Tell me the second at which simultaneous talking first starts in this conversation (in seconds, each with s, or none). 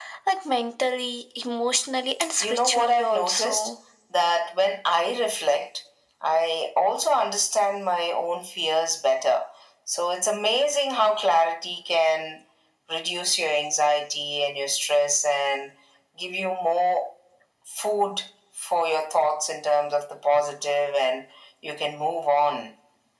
2.4 s